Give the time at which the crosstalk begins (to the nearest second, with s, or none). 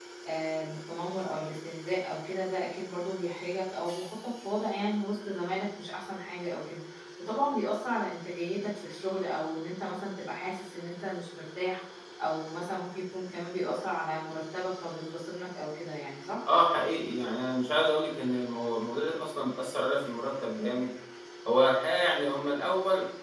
none